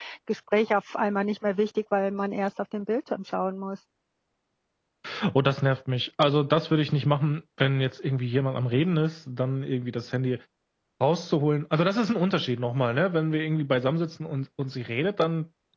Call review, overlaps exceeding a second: none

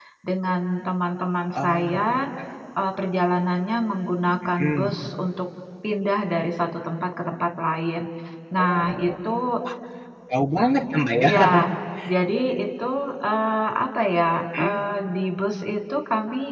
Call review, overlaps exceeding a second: none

